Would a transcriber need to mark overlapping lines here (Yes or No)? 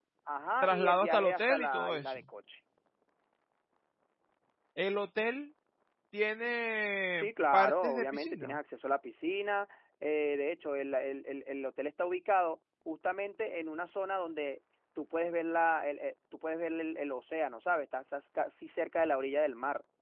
Yes